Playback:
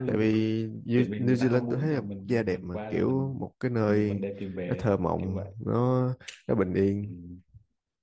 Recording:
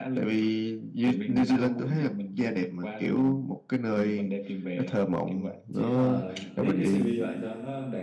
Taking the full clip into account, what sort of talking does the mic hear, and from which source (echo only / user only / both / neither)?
both